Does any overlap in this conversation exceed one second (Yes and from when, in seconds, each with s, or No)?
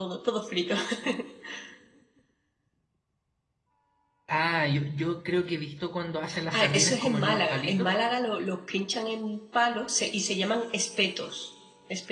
Yes, from 6.3 s